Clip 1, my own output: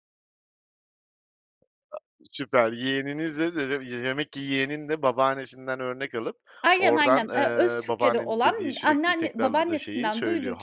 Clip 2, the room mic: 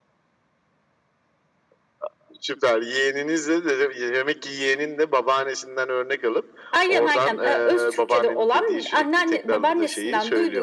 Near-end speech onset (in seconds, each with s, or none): none